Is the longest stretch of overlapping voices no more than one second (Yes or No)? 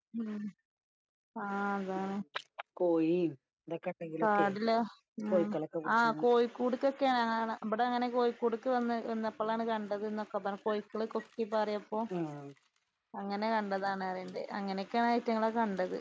Yes